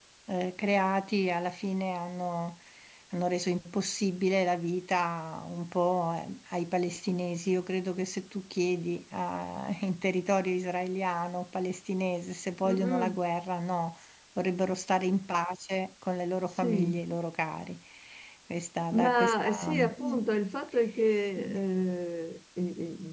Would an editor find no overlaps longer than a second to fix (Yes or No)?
No